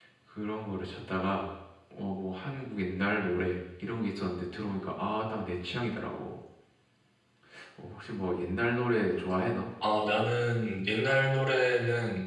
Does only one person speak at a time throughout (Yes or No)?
Yes